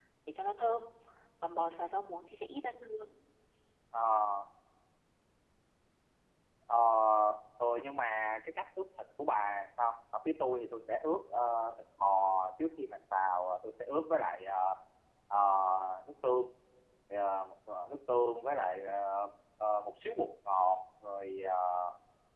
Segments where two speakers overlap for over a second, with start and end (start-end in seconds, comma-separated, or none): none